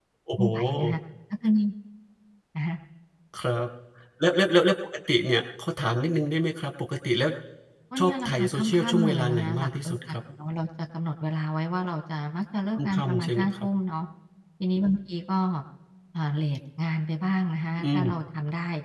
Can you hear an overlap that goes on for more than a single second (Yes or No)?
Yes